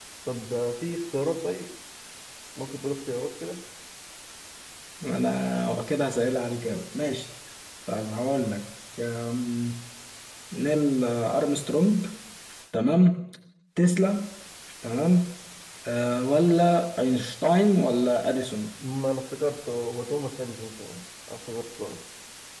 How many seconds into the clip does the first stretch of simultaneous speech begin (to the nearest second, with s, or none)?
none